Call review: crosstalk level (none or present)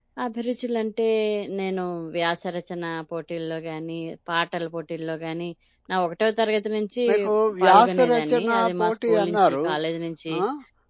present